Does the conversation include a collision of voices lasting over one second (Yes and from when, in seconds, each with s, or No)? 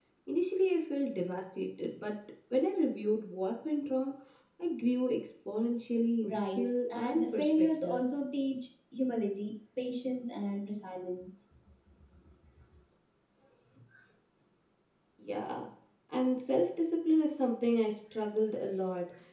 Yes, from 6.2 s